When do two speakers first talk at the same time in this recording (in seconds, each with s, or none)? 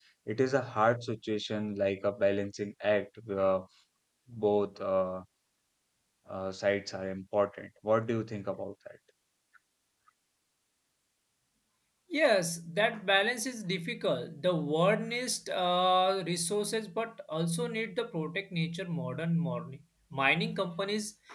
none